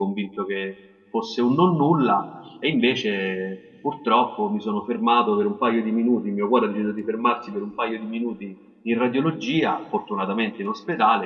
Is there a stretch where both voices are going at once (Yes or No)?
No